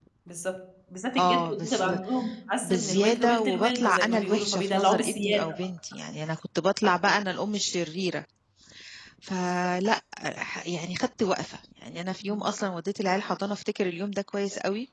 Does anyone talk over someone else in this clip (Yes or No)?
Yes